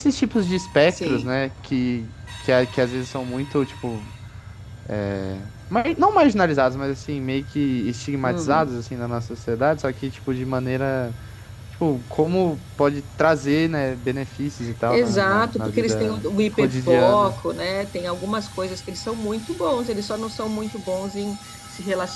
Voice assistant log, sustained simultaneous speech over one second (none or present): present